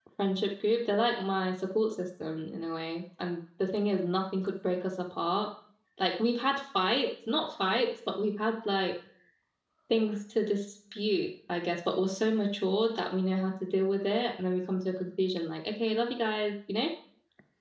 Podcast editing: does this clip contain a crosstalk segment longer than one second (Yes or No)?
No